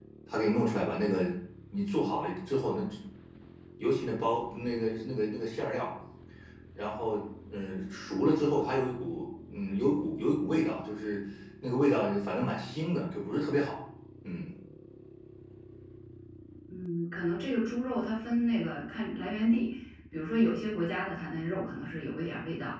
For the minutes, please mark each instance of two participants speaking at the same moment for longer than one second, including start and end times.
none

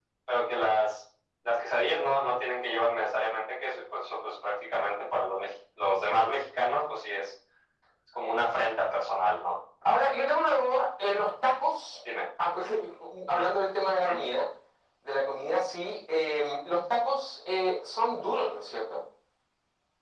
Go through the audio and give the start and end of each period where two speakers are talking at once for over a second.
none

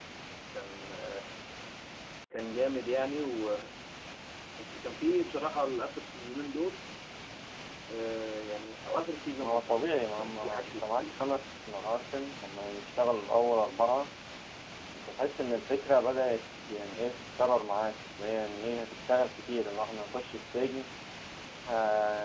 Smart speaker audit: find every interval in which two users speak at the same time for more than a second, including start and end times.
9.4-11.2

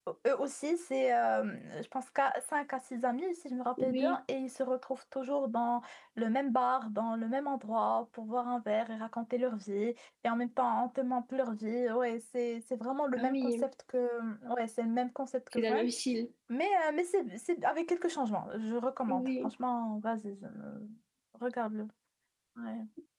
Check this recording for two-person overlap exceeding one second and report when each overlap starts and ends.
none

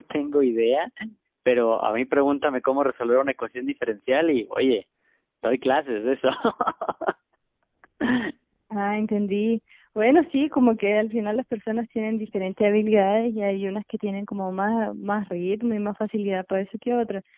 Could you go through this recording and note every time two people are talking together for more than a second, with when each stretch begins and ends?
none

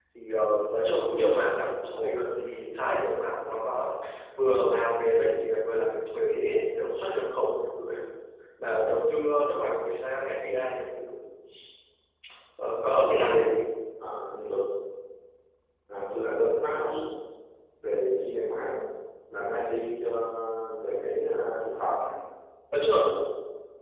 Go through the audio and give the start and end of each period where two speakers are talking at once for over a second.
none

